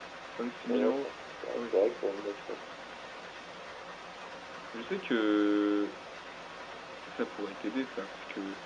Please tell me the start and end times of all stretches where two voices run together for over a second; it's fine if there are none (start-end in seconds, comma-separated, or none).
none